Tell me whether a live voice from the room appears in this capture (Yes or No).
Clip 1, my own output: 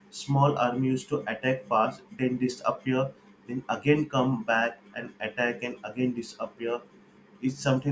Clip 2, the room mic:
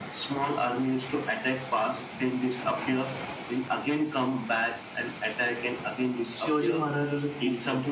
Yes